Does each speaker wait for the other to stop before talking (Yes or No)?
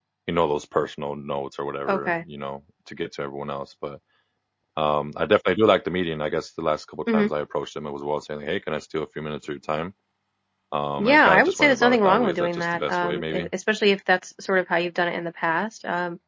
No